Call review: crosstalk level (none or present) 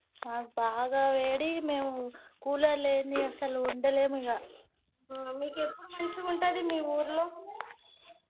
none